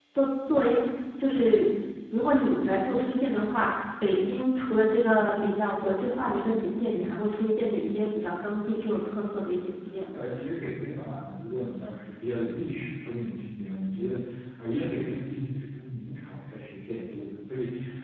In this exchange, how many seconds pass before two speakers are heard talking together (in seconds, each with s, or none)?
none